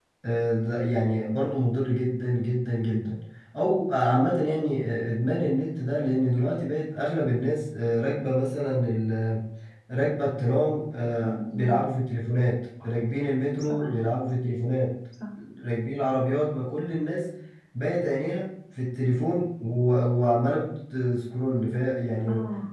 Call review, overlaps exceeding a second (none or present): none